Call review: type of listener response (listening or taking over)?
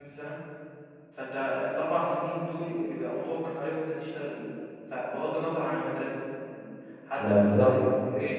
listening